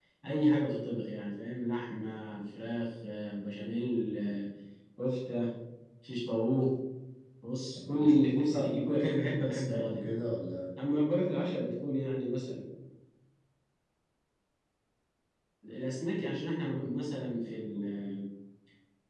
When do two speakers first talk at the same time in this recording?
8.0 s

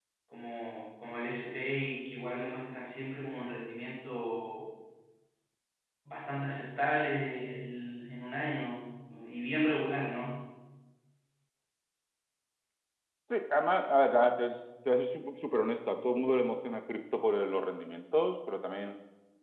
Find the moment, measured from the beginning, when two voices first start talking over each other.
none

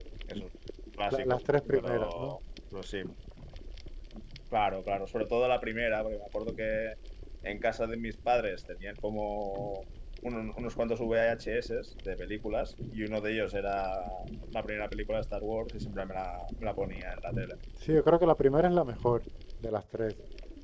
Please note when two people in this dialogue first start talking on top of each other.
1.1 s

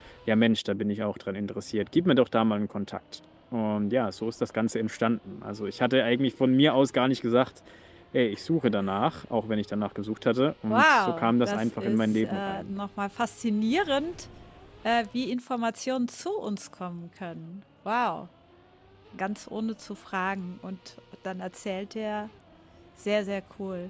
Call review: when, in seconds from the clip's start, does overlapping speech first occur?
10.7 s

